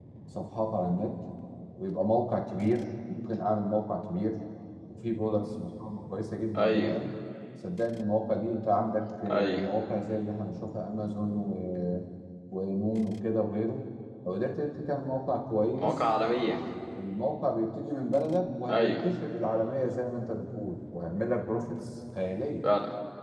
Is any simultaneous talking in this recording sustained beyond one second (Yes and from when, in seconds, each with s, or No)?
No